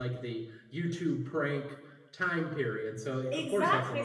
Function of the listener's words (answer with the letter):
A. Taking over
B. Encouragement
A